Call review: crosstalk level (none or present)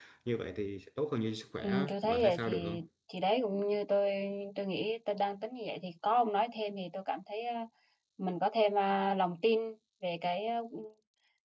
present